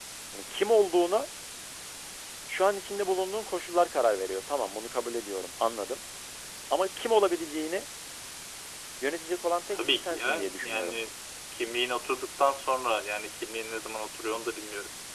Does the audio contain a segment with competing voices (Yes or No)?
Yes